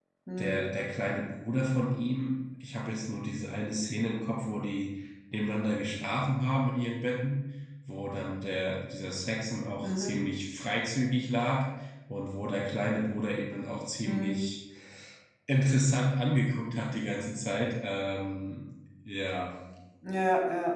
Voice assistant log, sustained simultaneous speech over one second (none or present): none